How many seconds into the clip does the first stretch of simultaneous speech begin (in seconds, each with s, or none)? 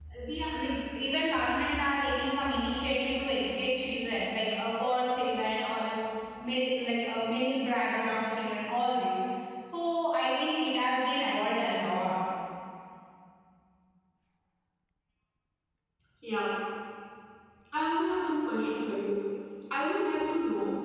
none